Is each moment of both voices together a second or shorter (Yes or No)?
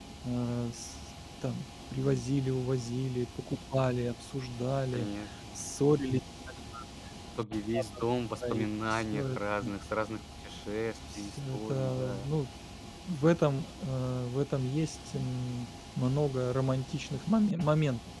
No